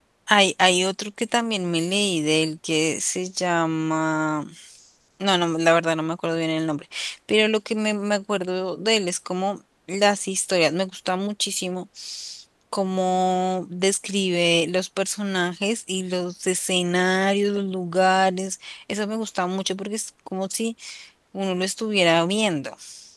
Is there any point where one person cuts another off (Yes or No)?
No